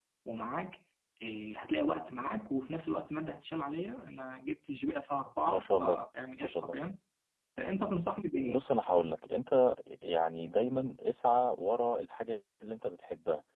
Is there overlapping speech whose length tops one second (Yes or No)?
No